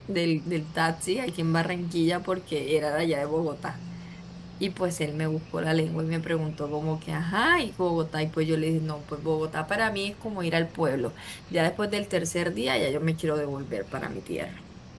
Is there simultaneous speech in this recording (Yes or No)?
No